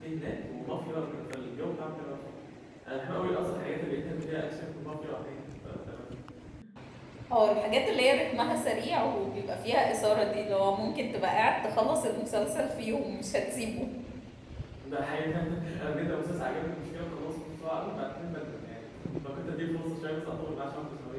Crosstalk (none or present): none